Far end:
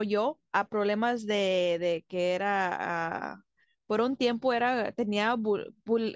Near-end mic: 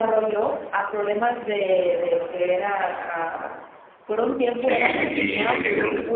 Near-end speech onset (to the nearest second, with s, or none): 5 s